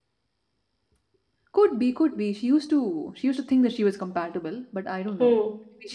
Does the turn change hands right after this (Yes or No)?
Yes